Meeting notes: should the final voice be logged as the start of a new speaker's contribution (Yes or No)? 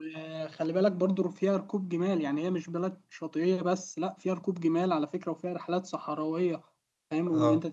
Yes